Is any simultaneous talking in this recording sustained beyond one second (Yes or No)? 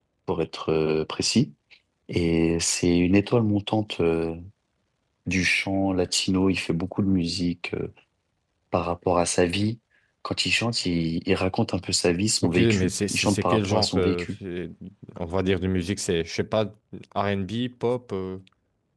Yes